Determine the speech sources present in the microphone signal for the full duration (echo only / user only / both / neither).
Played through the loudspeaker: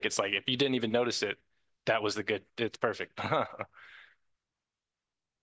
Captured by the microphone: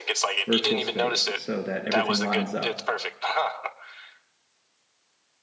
both